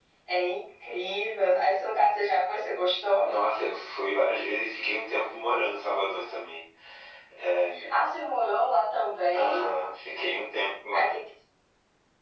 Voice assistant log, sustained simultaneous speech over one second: none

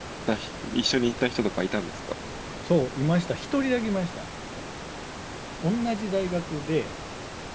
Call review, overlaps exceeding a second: none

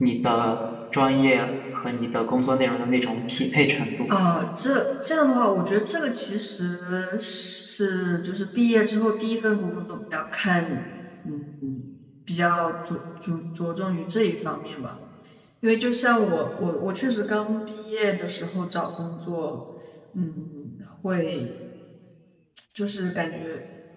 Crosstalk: none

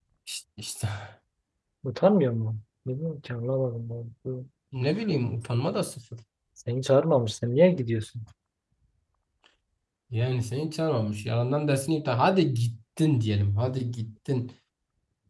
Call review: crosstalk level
none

